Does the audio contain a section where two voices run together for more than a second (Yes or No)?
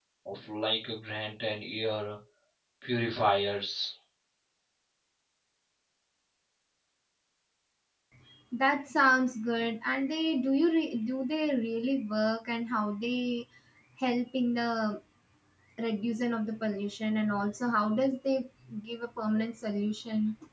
No